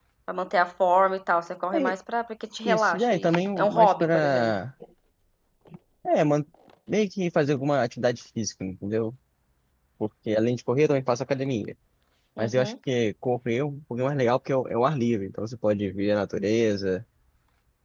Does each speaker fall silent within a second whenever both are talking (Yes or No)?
No